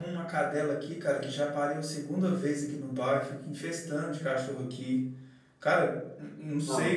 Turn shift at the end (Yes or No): No